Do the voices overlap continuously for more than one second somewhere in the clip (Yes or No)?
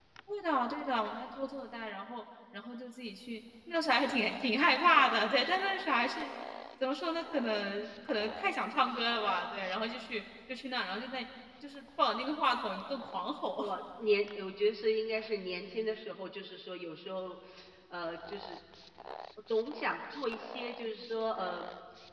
No